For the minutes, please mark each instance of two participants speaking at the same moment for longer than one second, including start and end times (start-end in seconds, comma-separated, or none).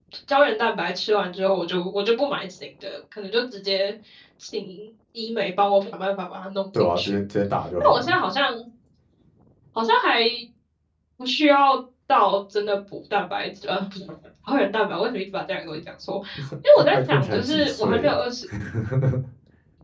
16.8-18.1